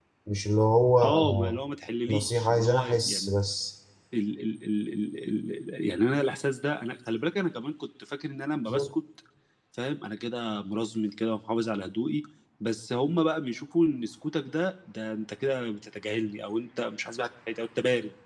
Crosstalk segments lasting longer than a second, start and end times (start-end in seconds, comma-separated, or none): 2.1-3.4